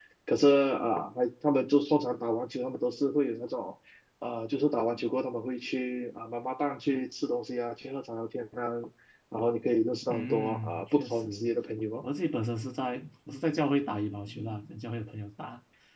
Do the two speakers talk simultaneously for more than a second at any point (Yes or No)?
Yes